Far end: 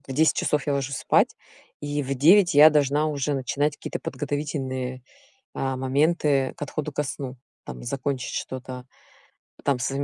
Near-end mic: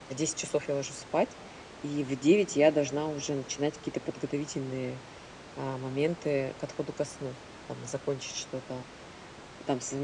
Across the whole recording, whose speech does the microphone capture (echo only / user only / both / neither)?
echo only